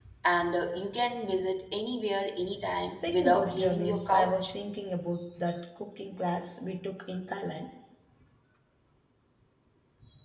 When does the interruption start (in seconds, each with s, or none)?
3.0 s